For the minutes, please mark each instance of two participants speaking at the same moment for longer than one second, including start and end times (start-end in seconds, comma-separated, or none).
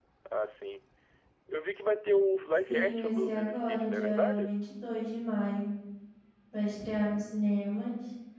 2.7-4.5